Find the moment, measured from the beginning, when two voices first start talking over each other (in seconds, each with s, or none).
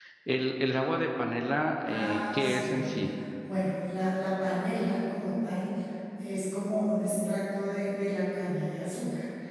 1.8 s